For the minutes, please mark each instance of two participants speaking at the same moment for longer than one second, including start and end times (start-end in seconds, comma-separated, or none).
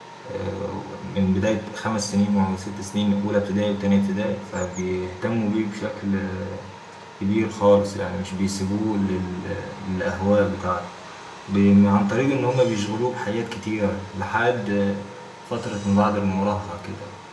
none